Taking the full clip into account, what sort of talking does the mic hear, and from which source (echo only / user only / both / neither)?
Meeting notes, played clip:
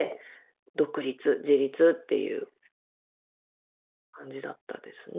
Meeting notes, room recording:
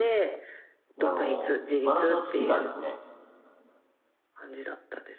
both